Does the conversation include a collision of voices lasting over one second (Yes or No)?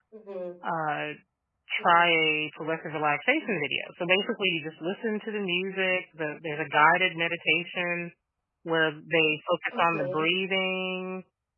No